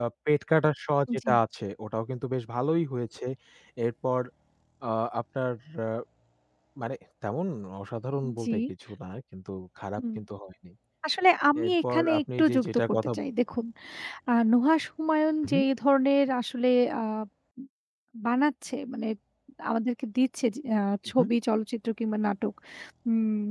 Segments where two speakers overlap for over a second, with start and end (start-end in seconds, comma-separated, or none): 11.6-13.1